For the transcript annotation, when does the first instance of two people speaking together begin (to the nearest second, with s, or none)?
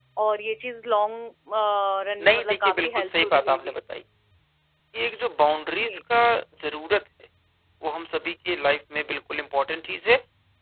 2 s